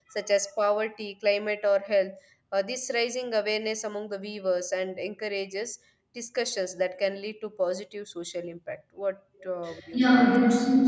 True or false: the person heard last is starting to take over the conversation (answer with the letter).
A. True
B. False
A